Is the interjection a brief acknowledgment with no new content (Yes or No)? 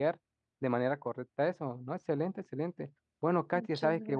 Yes